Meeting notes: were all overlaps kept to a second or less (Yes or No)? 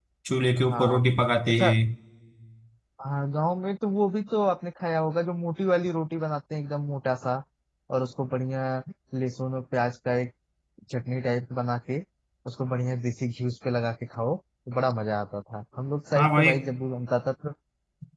Yes